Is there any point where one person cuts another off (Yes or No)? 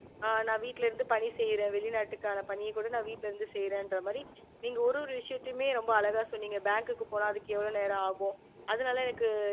No